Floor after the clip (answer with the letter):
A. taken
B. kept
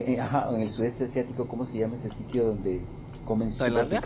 B